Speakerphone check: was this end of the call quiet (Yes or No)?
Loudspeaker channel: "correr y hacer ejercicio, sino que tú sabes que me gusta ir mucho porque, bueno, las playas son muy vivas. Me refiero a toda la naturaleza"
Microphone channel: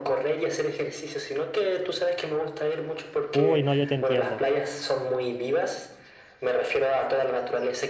No